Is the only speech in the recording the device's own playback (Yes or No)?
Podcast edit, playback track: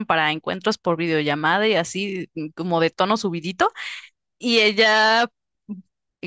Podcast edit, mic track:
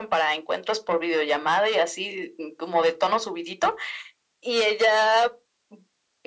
Yes